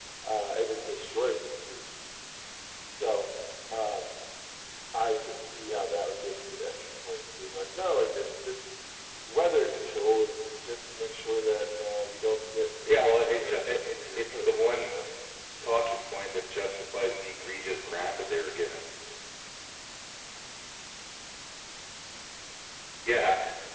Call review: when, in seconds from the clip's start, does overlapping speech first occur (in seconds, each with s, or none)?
12.8 s